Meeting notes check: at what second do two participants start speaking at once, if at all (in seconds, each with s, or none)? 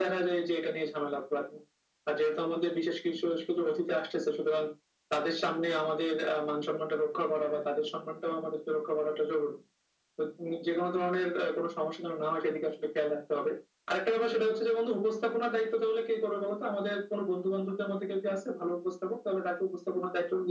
none